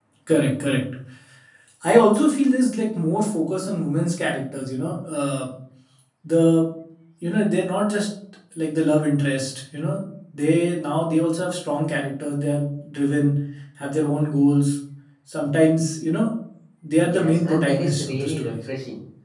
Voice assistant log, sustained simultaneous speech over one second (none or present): present